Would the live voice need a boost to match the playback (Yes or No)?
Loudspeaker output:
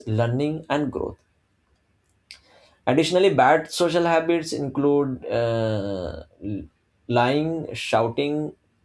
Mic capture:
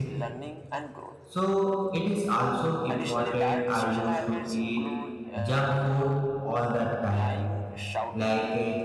No